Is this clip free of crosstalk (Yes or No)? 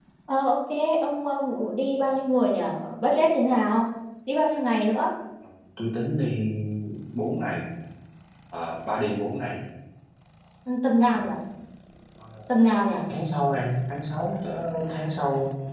Yes